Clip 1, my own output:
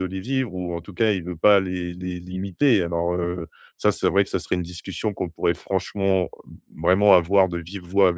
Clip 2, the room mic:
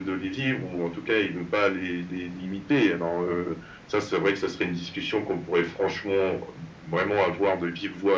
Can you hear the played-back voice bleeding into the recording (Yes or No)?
Yes